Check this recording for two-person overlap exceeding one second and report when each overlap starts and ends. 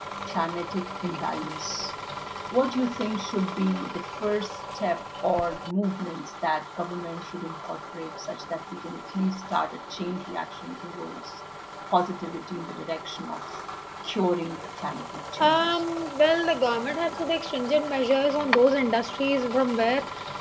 none

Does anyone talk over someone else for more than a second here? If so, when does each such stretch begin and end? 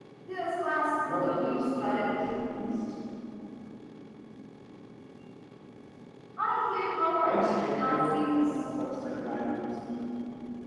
1.0-2.3, 7.2-8.6

